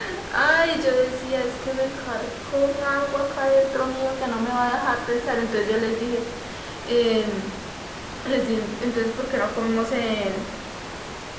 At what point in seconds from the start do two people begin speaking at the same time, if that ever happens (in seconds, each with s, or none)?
none